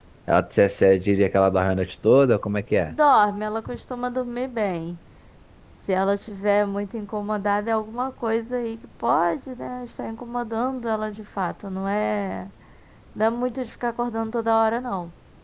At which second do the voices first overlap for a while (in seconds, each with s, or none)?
none